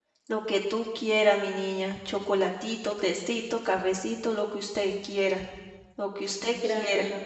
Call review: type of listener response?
taking over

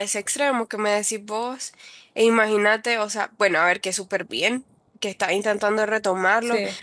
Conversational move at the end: listening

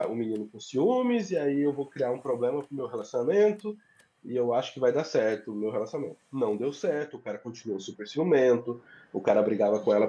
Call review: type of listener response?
listening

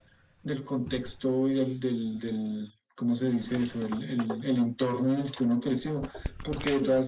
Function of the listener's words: listening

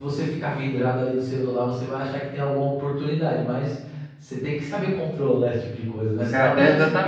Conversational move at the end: taking over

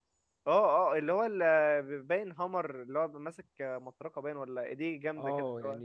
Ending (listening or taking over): taking over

